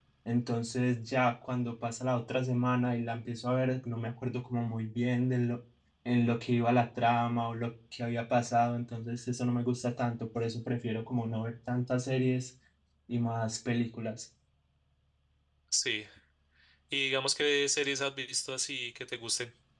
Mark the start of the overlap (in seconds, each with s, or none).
none